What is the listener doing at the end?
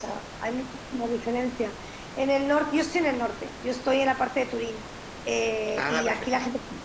listening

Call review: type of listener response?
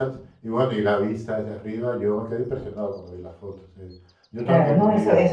taking over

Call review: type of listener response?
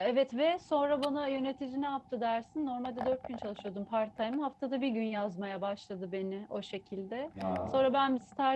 listening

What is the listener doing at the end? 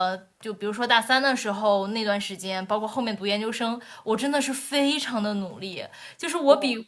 listening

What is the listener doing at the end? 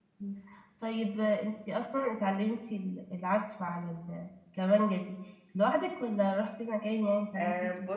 taking over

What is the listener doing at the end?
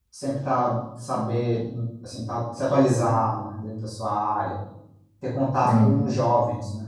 listening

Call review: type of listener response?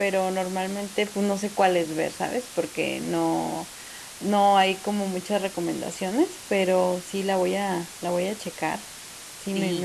taking over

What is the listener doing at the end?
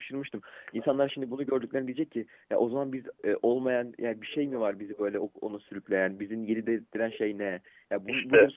listening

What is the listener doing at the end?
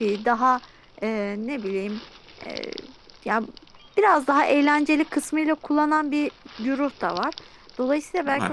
listening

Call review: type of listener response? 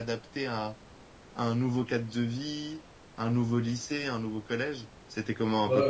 taking over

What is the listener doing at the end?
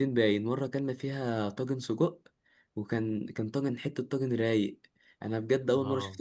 listening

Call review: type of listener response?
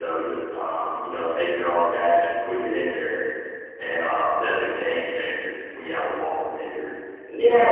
taking over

